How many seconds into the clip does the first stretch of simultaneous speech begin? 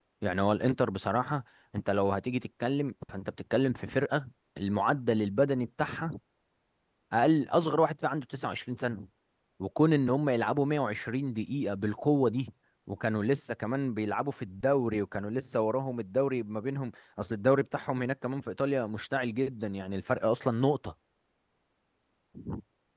none

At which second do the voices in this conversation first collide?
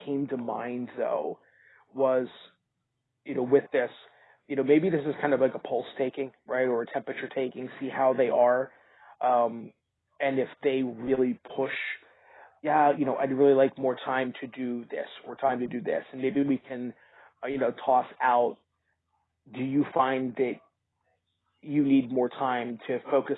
none

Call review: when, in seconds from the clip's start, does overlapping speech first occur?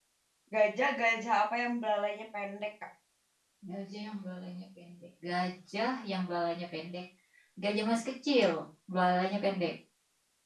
none

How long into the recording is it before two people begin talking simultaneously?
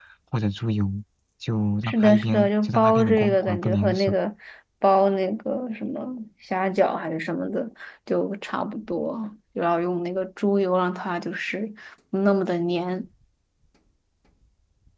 1.8 s

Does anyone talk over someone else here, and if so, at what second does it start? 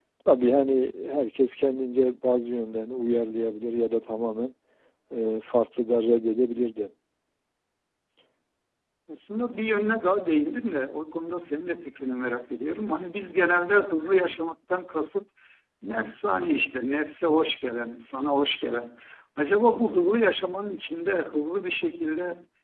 none

